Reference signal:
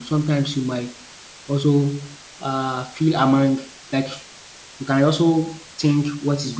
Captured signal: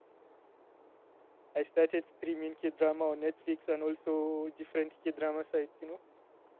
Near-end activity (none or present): present